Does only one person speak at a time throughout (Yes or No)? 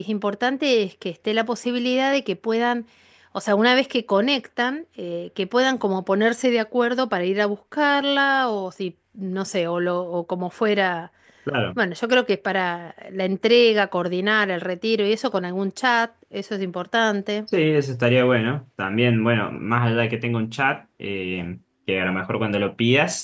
Yes